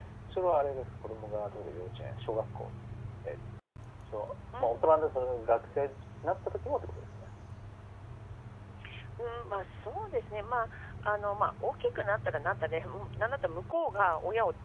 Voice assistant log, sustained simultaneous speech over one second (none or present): none